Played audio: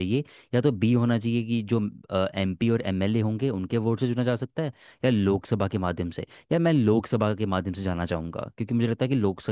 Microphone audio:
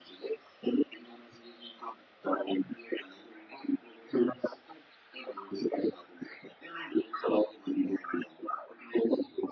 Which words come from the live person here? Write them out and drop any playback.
none

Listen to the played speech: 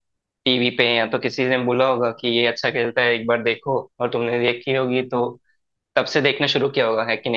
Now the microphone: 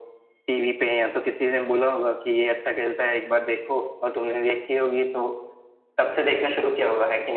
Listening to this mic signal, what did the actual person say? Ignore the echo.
none

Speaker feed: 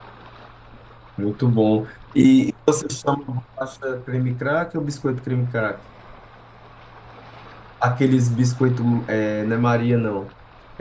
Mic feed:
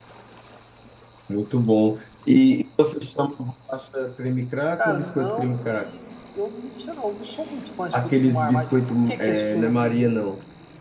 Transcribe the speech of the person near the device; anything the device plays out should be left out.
Cara, não, e eu não me você não, eu não sou muito fã de frutos do mar, mas o que é que é surubim? Eu-

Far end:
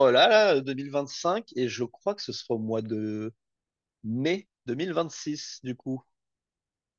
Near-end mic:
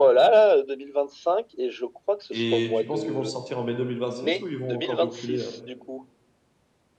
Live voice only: Et tu penses qu'ils vont le sortir en mai 2026 ou ils vont encore reculer? euh

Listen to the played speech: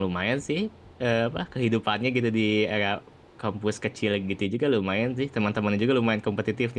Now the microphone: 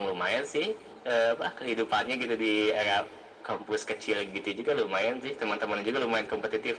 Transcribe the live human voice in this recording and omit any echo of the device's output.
none

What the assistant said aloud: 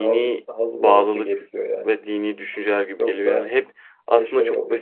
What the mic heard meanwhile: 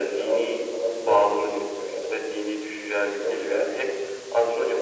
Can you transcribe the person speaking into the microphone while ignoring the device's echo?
none

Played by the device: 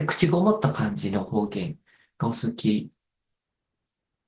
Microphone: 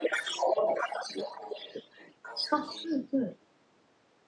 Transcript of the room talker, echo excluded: あ、うん、う

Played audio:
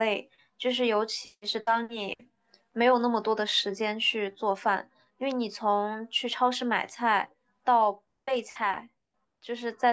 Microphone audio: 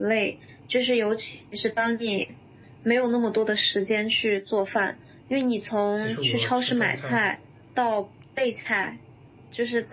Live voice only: 其实我吃中餐，

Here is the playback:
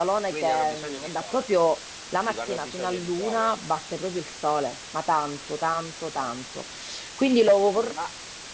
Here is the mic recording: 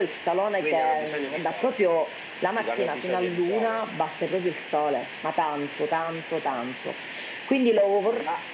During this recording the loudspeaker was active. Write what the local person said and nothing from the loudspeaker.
none

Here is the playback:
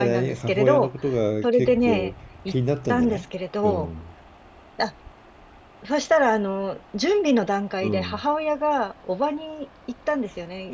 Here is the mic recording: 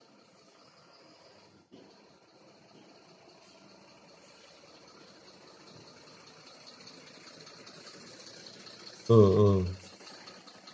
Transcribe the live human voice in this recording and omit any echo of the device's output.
うん、うん。

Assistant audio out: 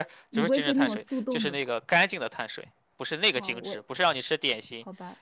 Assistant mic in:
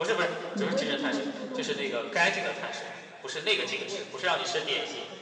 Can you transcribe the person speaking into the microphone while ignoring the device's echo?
嗯

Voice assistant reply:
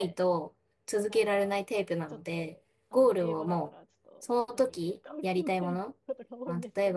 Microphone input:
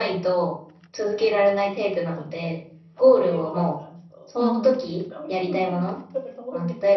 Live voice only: うん。

